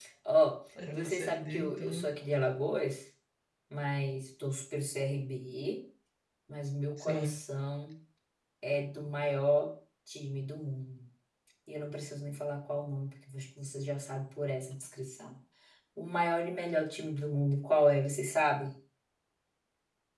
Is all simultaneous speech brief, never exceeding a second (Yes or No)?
No